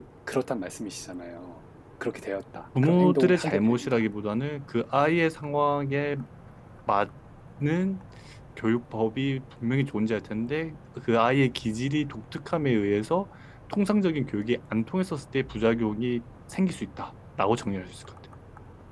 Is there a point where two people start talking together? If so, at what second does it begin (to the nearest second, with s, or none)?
3 s